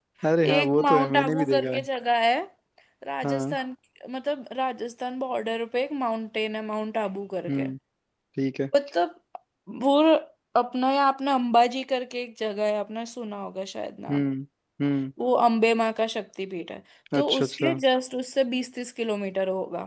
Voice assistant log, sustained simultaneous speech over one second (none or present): present